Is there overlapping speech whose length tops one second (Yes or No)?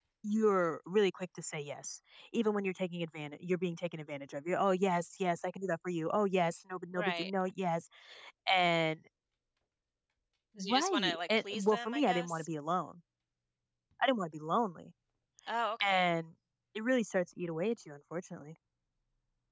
Yes